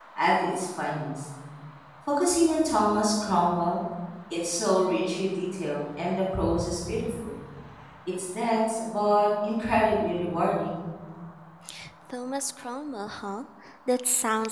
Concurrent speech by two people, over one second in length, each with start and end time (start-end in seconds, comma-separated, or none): none